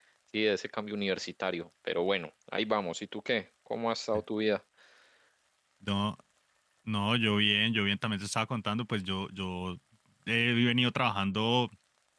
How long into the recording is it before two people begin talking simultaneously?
none

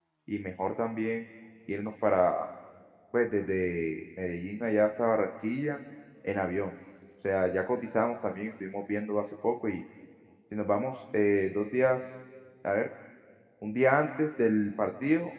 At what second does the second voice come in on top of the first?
none

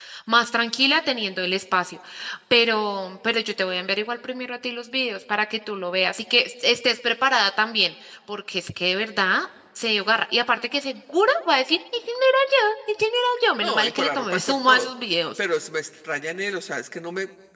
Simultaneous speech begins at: 13.6 s

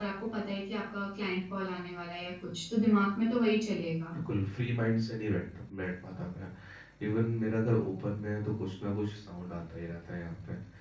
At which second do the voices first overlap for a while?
none

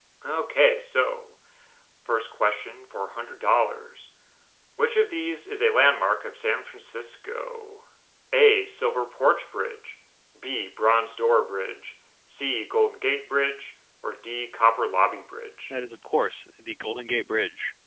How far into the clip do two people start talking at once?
none

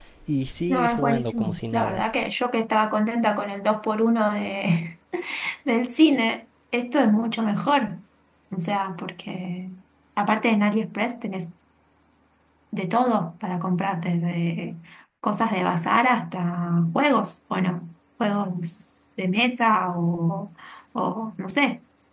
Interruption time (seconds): 0.7 s

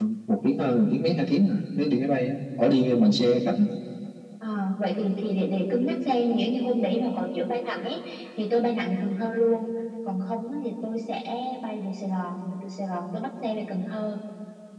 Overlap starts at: none

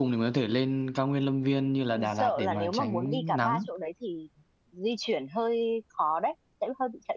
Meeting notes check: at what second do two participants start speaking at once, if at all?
1.9 s

